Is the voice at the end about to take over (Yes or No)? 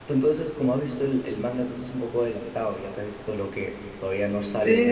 Yes